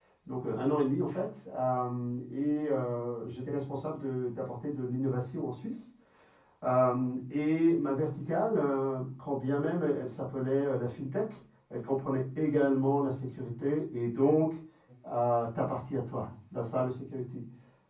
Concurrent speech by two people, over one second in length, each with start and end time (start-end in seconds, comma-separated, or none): none